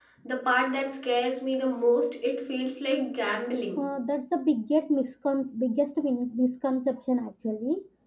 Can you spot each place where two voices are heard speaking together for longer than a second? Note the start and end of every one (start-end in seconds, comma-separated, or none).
none